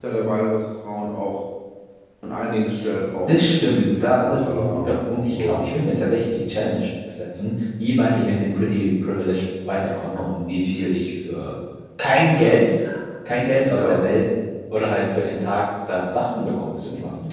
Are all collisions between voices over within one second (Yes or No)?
No